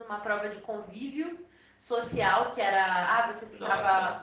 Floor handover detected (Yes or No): No